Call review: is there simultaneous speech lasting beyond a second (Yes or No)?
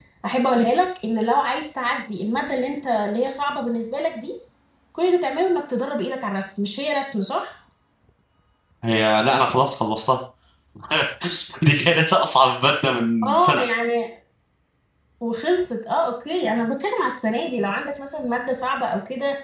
No